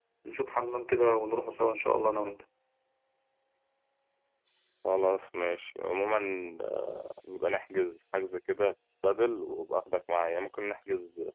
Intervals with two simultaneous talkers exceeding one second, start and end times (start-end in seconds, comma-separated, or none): none